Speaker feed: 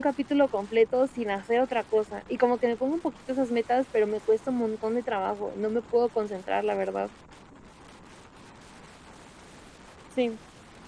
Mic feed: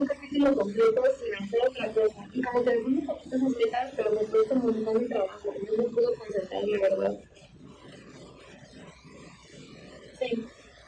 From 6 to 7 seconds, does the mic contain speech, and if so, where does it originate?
echo only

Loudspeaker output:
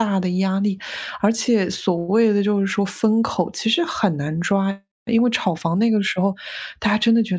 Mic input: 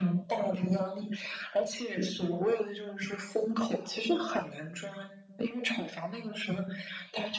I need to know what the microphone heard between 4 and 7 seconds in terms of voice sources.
echo only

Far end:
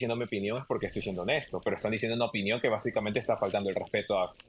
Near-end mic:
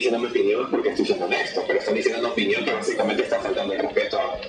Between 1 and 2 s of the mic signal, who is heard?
echo only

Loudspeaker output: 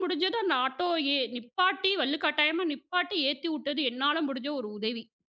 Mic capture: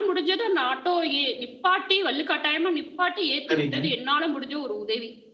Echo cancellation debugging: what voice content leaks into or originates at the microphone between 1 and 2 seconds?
echo only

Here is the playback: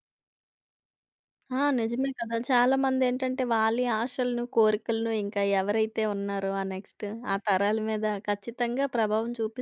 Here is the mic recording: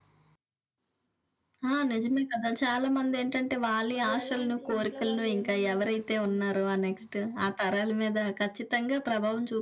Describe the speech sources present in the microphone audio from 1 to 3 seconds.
echo only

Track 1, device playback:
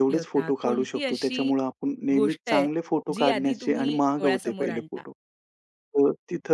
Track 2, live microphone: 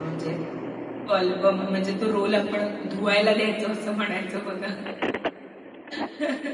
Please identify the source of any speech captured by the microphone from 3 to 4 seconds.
user only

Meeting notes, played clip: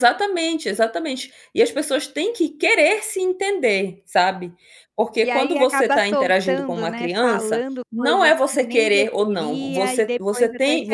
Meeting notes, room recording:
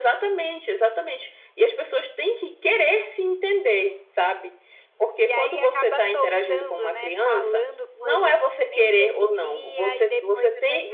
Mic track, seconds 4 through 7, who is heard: echo only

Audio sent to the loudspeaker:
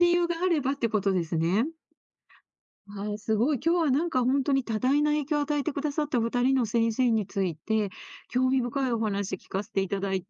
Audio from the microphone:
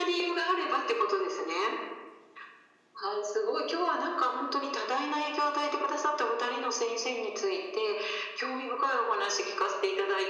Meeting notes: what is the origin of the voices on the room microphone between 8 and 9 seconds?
echo only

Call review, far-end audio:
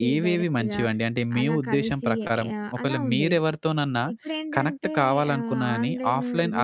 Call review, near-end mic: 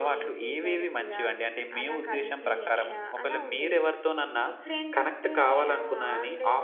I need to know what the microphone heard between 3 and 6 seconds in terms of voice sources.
echo only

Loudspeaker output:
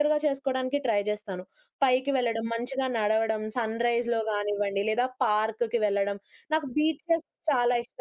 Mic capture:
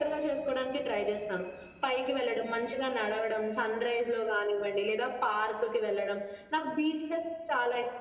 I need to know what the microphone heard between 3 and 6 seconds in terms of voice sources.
echo only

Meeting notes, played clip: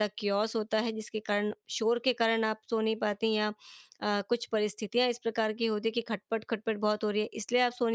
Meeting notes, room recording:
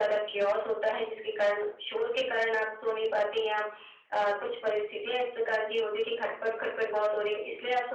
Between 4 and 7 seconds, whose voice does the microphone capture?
echo only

